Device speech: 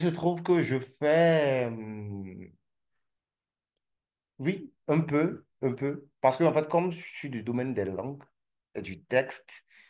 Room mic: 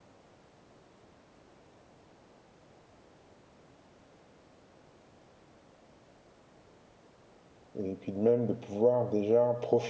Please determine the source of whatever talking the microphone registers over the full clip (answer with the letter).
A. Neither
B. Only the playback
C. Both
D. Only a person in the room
D